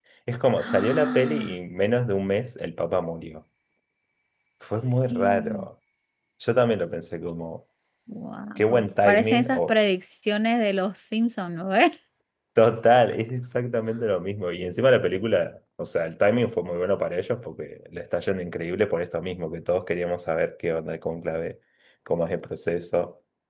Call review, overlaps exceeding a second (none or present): present